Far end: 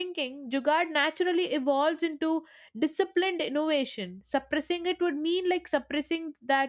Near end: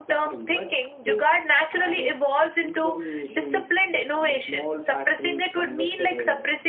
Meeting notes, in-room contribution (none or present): present